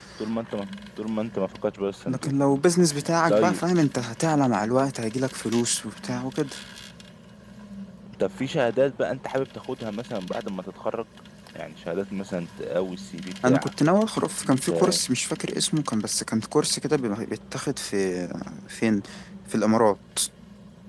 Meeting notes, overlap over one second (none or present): none